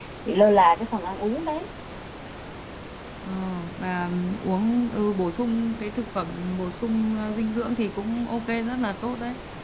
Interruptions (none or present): none